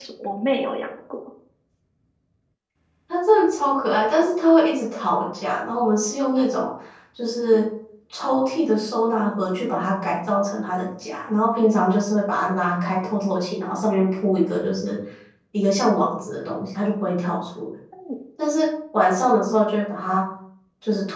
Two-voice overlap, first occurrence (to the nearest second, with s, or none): none